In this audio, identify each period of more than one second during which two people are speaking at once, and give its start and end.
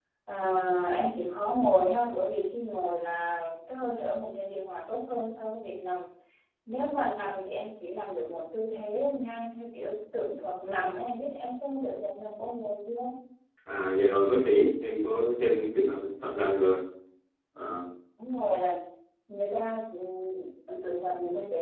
none

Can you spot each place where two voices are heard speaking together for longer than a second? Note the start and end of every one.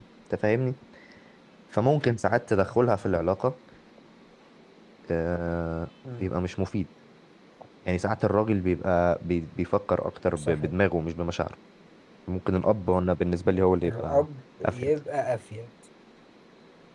none

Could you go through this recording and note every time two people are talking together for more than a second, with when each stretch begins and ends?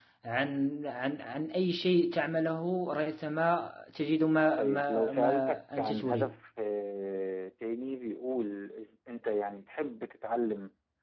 4.6-6.4

